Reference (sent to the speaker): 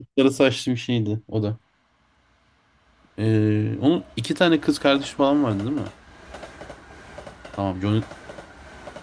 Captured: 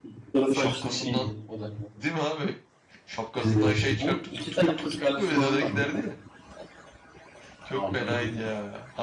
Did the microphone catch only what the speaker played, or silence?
No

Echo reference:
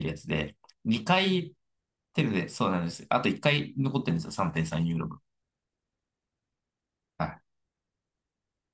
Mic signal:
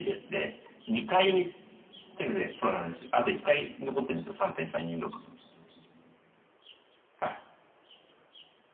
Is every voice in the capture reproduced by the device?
Yes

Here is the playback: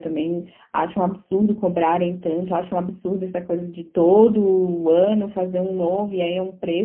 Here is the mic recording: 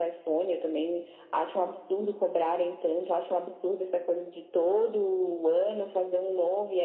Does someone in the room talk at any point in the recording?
No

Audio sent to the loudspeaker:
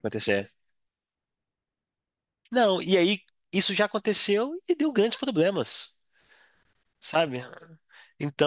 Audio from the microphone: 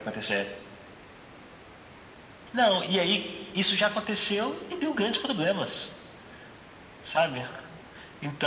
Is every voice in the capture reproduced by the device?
Yes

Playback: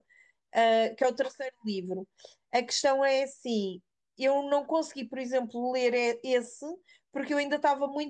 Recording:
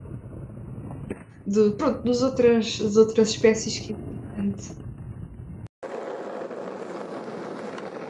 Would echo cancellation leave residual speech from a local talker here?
Yes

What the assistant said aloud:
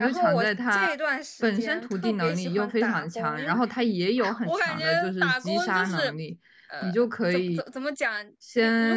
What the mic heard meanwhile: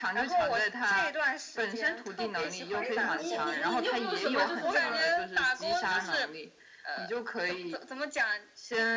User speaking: Yes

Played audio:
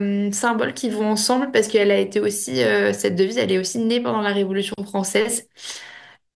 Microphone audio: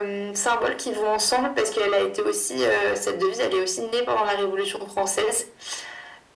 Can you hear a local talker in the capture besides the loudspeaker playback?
No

